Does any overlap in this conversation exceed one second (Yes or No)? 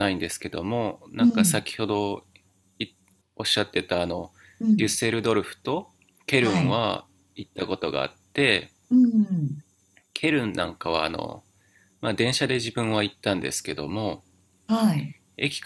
No